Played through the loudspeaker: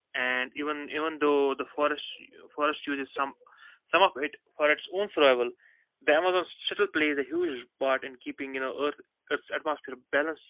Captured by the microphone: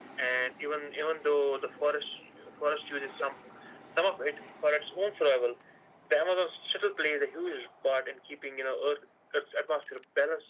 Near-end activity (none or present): none